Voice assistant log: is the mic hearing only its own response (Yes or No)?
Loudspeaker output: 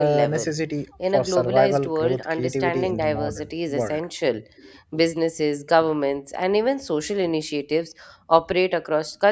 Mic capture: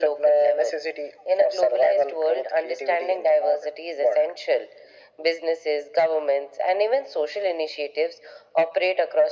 Yes